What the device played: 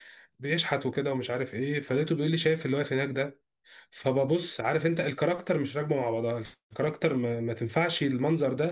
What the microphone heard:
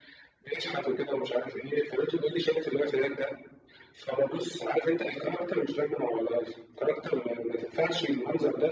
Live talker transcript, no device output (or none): none